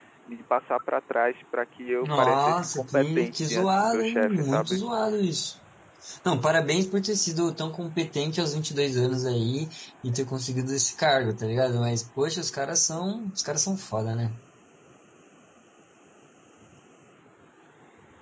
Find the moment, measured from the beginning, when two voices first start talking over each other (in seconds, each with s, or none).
2.0 s